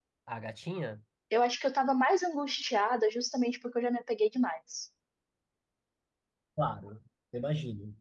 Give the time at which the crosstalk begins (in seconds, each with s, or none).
none